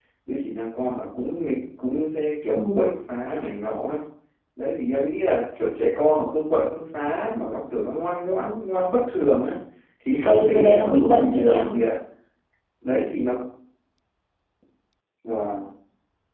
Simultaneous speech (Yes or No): Yes